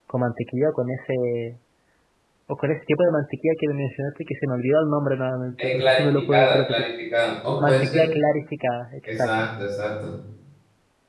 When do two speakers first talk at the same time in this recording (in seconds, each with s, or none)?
5.6 s